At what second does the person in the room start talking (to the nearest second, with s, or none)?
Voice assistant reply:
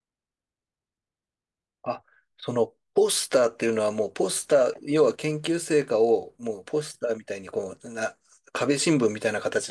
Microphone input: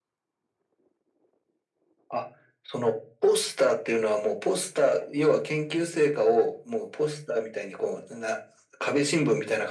none